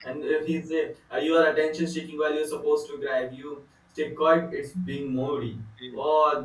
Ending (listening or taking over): listening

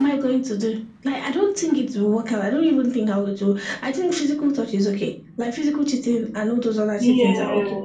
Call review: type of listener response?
listening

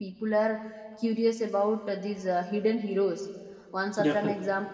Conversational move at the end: listening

